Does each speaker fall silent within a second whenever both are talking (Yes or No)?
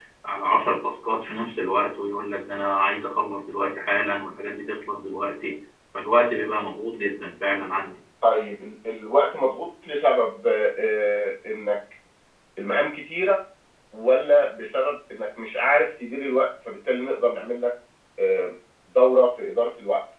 Yes